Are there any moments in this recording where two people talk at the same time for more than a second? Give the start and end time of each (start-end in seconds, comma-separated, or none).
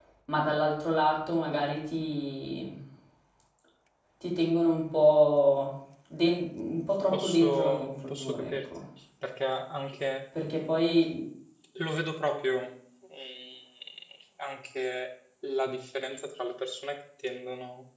7.1-8.6